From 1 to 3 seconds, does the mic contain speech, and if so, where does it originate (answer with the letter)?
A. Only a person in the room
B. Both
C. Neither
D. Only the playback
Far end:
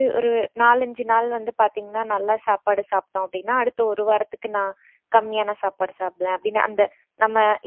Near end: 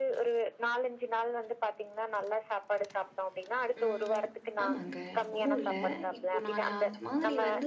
D